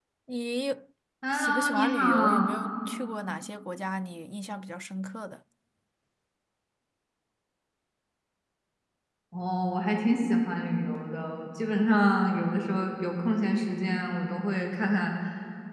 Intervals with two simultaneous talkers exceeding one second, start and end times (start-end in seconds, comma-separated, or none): 1.3-2.5